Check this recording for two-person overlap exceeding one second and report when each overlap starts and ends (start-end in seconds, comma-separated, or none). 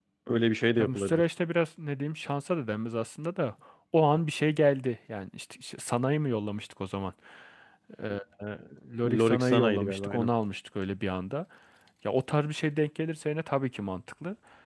9.1-10.3